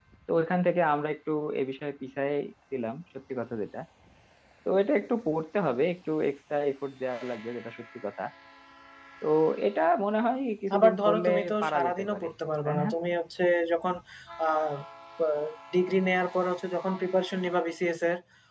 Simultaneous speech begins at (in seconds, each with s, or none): 10.7 s